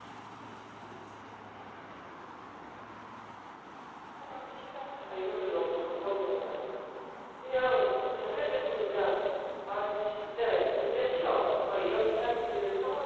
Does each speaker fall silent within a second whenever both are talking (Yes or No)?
No